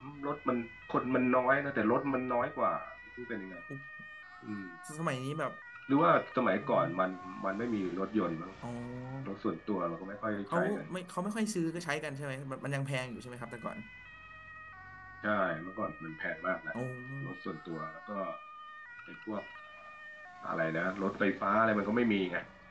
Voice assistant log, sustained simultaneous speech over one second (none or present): none